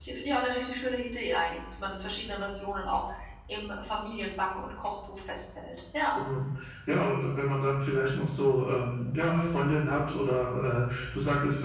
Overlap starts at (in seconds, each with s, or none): none